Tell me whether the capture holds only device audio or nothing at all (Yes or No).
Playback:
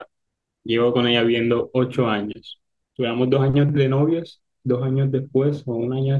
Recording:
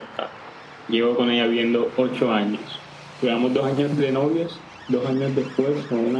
Yes